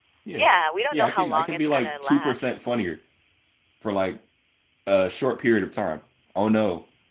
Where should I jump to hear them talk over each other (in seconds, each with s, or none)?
0.9 s